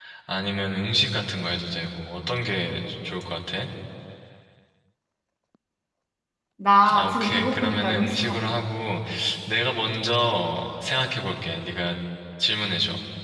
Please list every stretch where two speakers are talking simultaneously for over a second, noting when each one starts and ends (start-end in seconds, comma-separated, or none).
6.9-8.5